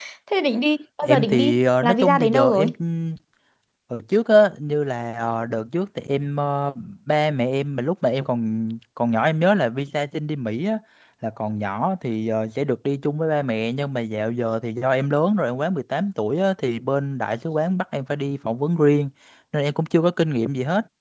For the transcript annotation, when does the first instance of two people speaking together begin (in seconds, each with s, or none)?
1.0 s